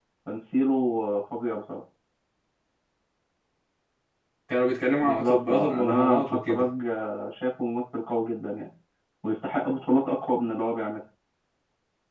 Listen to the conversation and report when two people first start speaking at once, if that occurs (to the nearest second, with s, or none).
5 s